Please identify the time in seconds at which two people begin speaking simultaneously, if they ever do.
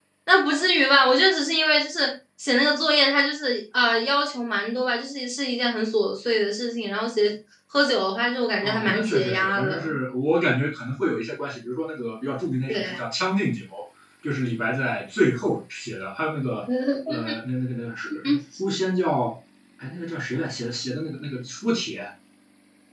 9 s

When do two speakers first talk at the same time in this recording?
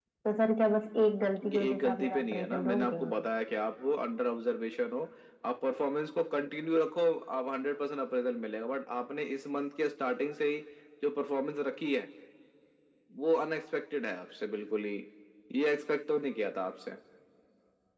1 s

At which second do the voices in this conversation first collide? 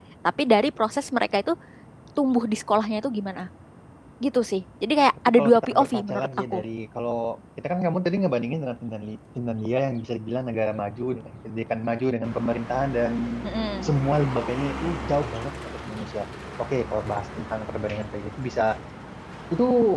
5 s

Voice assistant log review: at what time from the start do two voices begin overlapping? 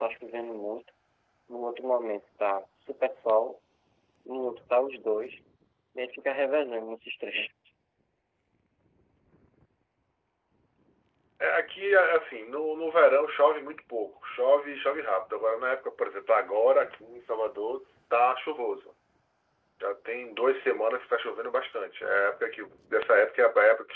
none

